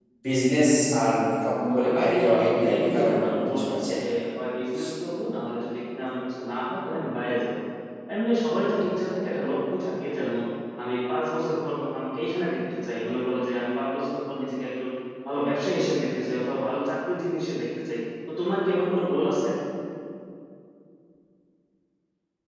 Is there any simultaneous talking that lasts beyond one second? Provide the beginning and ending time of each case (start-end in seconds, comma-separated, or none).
1.8-3.9